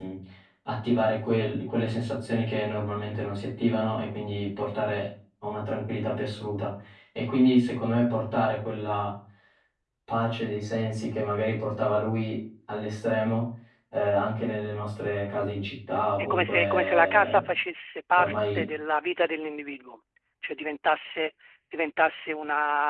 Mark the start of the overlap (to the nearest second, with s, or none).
16 s